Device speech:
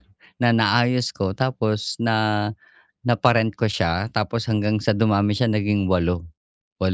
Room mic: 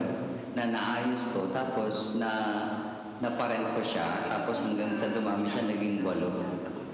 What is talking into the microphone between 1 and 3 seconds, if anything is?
echo only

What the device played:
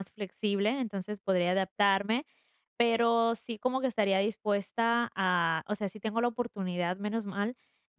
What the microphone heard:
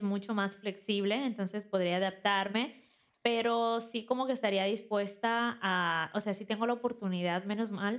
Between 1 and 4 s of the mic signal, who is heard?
echo only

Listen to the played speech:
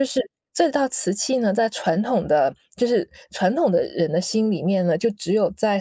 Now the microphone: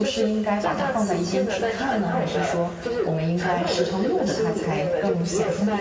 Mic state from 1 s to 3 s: both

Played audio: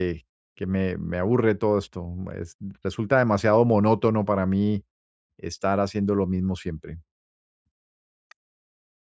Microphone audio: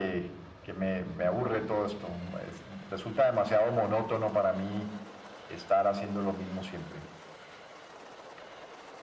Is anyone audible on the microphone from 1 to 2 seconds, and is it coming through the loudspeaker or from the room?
echo only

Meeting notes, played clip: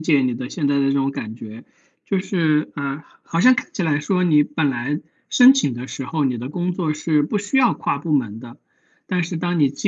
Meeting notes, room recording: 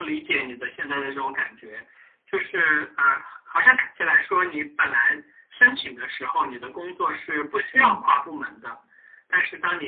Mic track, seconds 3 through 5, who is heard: echo only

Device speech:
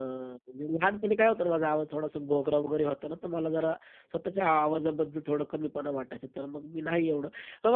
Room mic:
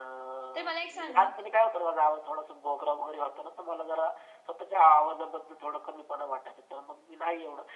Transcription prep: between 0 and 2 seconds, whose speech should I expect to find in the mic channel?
both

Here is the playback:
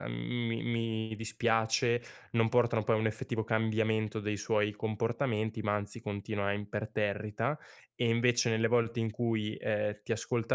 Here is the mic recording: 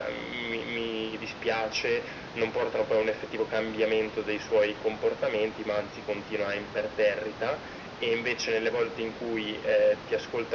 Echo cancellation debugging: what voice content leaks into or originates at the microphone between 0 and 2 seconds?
echo only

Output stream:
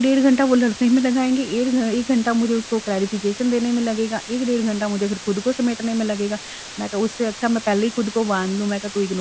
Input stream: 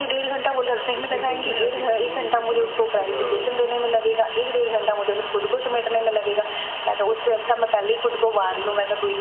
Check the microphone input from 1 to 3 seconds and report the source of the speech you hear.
both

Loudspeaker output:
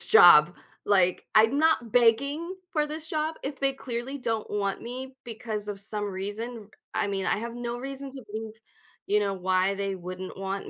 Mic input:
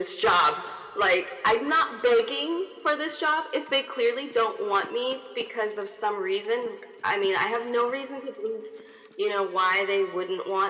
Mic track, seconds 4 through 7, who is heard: echo only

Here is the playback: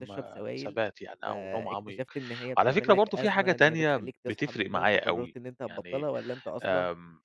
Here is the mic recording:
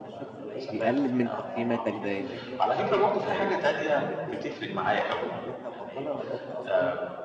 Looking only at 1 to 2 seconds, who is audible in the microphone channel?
both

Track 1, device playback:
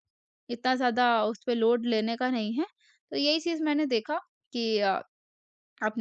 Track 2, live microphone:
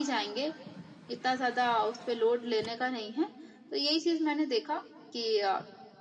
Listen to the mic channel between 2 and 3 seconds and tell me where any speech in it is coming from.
echo only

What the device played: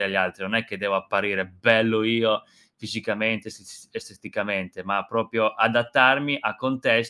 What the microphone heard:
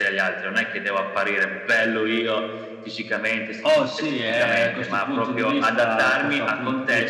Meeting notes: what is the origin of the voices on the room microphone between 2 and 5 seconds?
both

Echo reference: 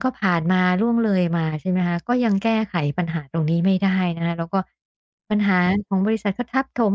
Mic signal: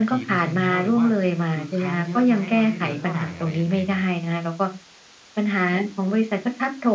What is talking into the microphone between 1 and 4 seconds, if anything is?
both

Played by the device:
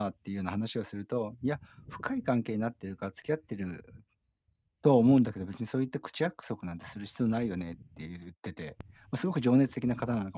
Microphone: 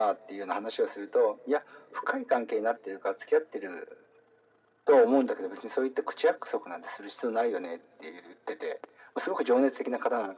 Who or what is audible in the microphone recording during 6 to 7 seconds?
echo only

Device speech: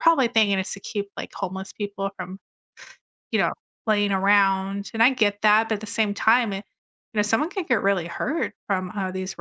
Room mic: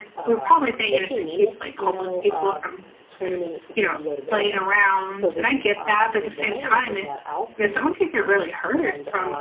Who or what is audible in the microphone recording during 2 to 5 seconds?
both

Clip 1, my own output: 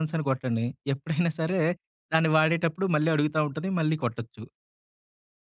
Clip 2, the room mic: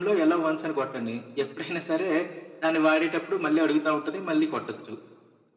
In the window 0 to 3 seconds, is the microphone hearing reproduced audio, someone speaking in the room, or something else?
echo only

